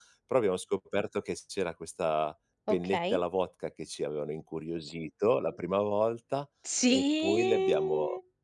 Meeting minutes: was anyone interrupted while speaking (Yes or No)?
Yes